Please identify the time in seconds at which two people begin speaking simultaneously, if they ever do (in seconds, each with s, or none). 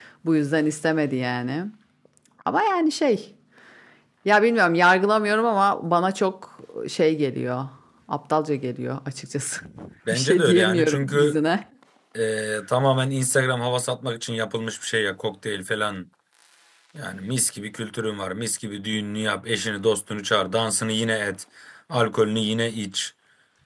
10.1 s